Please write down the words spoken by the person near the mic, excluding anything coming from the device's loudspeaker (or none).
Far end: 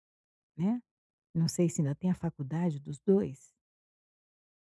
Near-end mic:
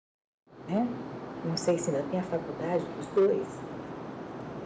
none